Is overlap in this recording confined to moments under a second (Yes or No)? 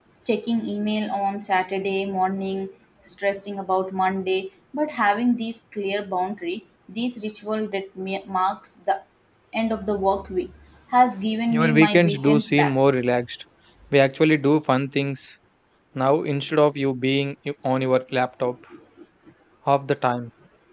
No